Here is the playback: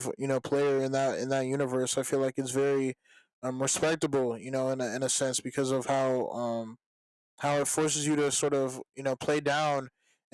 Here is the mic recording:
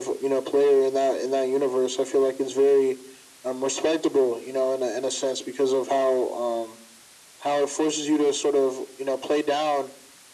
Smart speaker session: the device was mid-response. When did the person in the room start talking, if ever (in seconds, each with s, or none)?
none